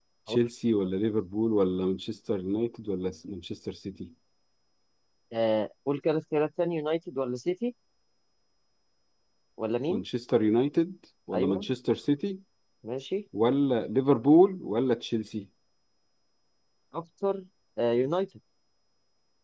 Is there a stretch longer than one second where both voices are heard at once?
No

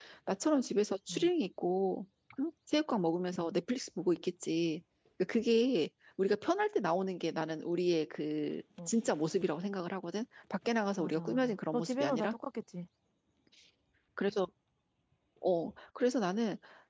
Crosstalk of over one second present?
Yes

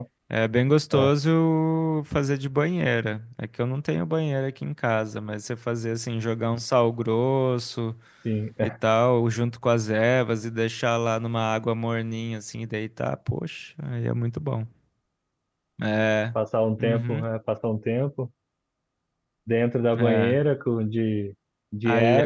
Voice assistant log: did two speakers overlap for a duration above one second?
No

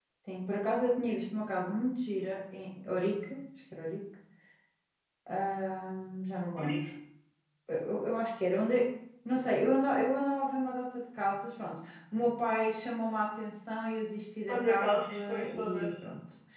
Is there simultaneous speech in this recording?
Yes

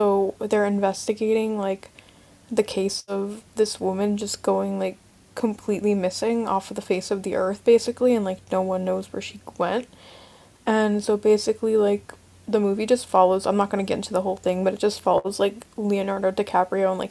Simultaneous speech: No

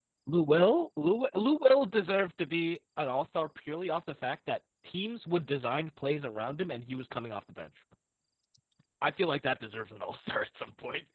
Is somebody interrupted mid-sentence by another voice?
No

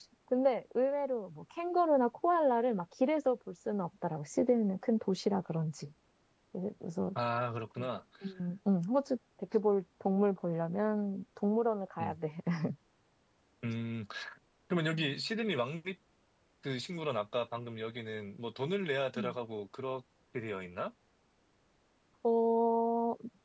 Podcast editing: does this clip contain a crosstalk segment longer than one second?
No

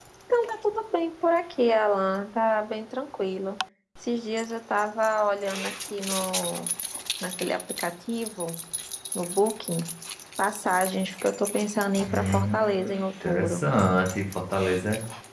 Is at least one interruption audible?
Yes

